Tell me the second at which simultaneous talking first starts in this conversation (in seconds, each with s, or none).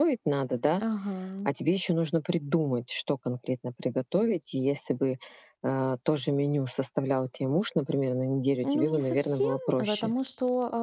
8.6 s